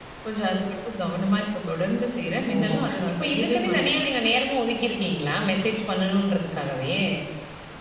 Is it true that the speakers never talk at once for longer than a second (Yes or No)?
No